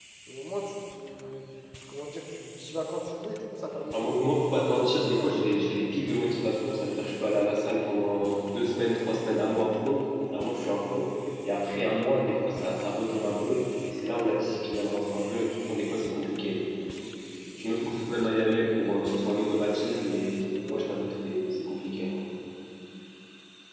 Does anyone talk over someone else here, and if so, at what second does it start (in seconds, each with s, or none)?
3.9 s